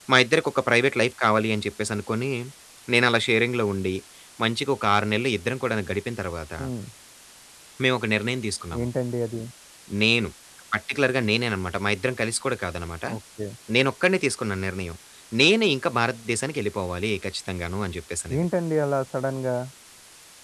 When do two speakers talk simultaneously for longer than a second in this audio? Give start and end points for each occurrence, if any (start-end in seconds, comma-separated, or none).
none